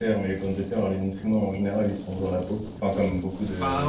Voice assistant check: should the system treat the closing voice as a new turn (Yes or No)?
Yes